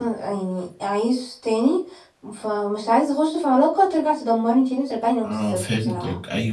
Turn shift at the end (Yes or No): Yes